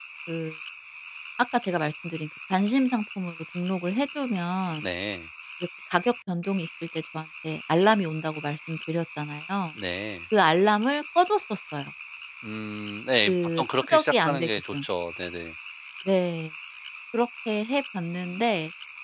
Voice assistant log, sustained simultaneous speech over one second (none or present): present